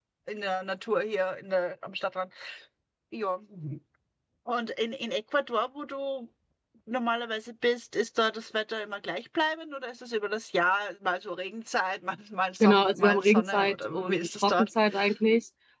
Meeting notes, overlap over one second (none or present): present